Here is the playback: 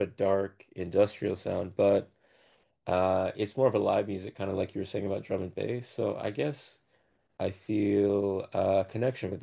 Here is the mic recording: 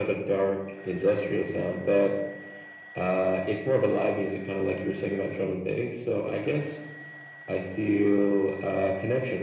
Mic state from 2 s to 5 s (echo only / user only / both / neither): echo only